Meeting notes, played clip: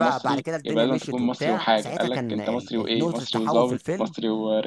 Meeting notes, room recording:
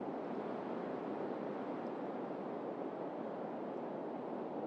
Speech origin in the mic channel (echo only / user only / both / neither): neither